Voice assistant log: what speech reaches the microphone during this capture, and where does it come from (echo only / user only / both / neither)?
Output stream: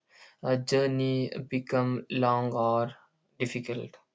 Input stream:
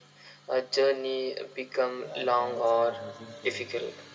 both